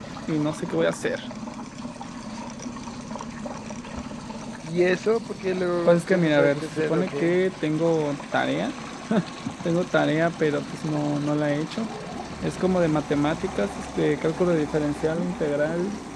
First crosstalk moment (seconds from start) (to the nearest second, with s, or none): 6 s